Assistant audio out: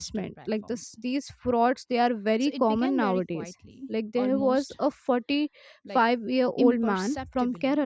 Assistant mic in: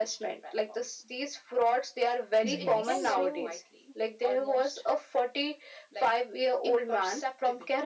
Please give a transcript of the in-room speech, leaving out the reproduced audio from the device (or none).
Yes. So,